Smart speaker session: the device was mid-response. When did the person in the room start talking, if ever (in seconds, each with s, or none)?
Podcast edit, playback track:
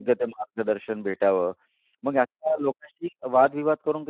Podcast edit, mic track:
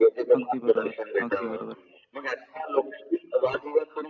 0.4 s